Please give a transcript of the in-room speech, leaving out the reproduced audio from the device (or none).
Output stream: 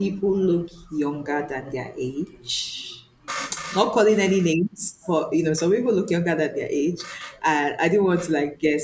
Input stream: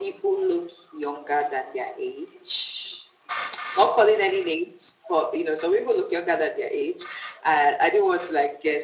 none